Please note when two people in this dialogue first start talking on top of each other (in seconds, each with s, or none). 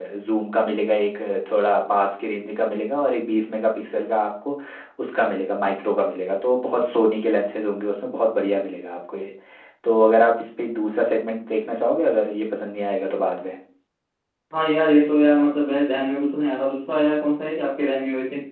none